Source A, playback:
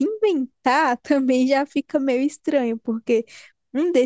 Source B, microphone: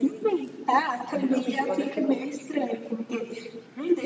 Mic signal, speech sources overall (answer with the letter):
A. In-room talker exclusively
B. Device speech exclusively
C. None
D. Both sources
D